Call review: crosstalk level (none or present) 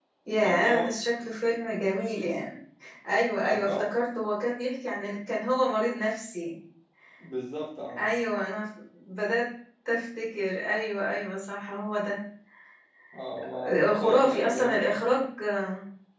present